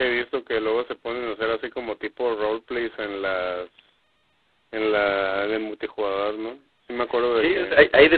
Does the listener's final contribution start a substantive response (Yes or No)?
Yes